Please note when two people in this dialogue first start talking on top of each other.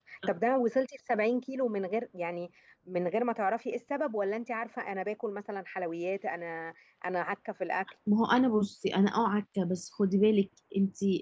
none

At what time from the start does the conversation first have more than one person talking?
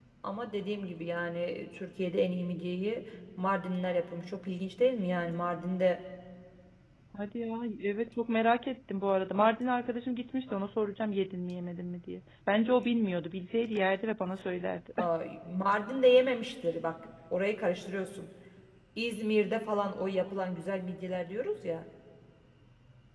none

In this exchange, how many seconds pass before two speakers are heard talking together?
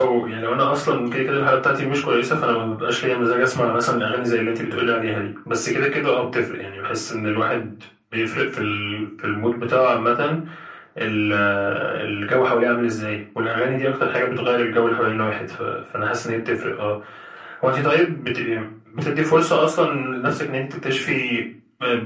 none

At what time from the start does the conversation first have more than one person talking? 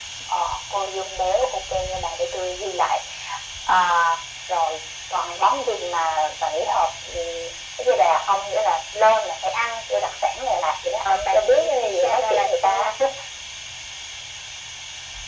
11.1 s

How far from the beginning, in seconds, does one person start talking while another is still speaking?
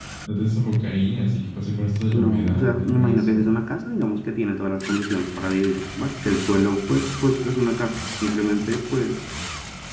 2.1 s

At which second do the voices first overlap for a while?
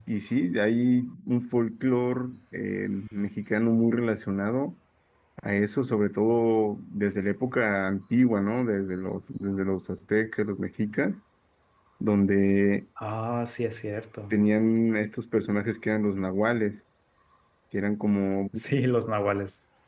none

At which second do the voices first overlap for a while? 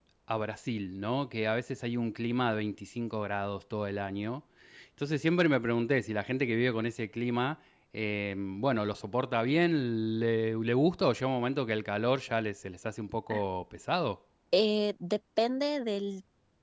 none

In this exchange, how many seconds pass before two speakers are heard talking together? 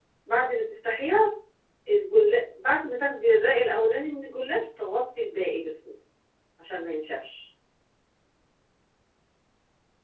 none

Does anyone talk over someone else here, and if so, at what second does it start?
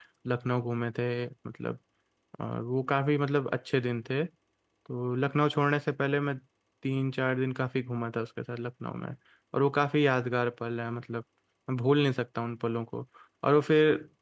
none

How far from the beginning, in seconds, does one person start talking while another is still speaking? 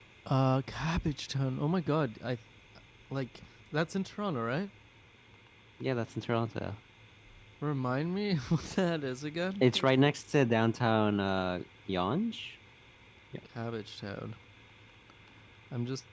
none

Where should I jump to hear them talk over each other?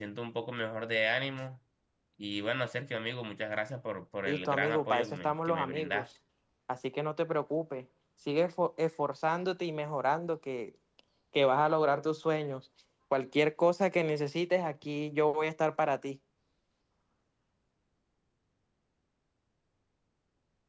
4.2 s

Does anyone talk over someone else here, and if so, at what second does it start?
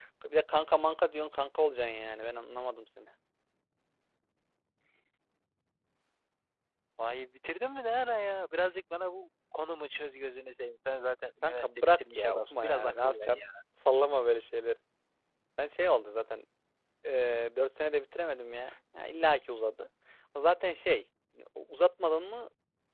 11.4 s

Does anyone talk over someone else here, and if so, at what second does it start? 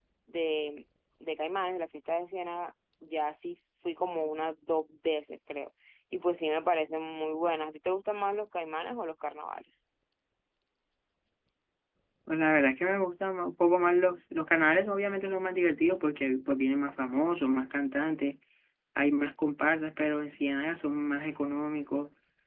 none

